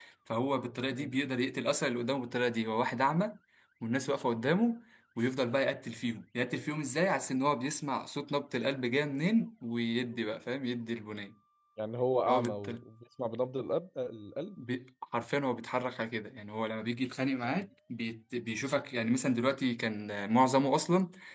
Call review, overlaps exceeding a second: none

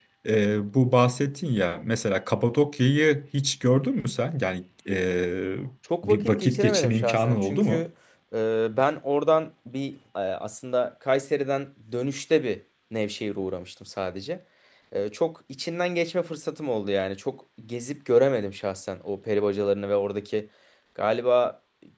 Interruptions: present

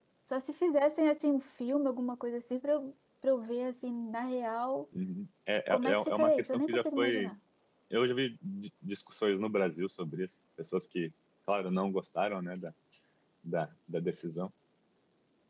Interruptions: present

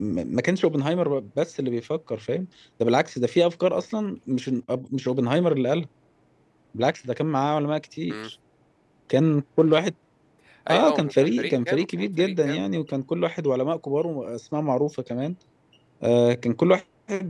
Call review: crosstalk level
present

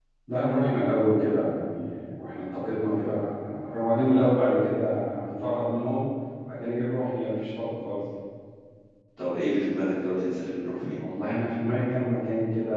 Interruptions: none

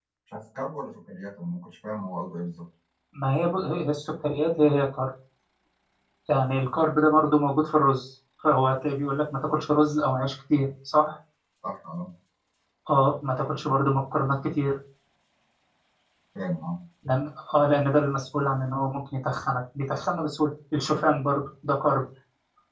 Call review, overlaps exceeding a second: none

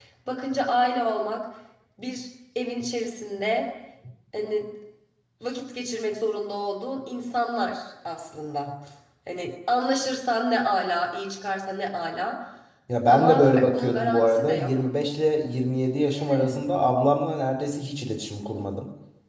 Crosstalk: present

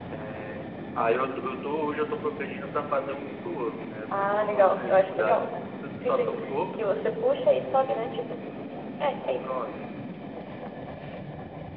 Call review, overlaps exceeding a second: present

